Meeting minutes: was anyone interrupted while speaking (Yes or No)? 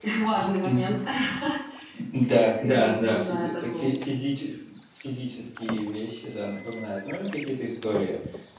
Yes